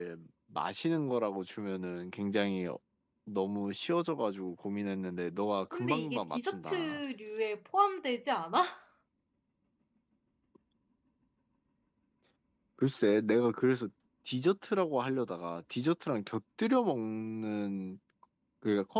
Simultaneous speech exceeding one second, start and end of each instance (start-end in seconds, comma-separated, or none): 5.7-7.0